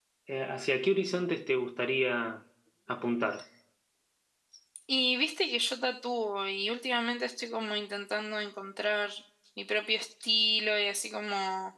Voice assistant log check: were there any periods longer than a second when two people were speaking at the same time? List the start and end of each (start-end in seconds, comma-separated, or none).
none